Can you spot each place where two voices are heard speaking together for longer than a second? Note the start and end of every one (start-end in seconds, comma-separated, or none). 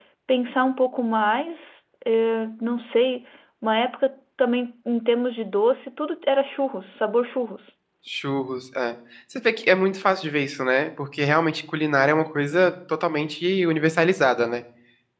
none